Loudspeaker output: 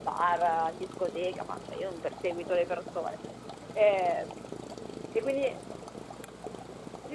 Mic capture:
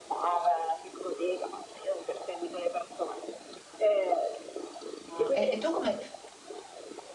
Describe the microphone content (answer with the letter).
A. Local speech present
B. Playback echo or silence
A